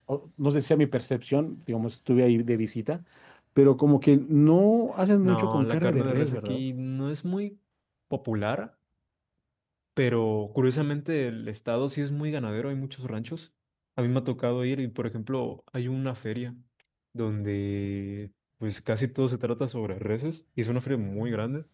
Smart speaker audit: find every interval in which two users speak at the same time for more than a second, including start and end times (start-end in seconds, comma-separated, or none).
5.3-6.6